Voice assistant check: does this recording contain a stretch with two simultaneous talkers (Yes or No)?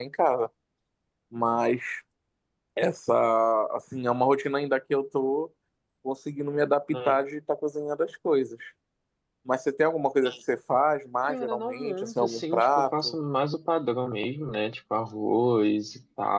Yes